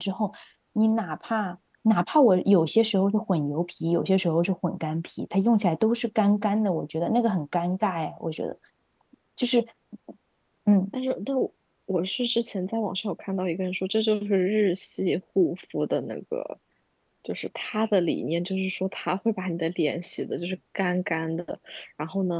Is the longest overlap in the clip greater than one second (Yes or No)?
No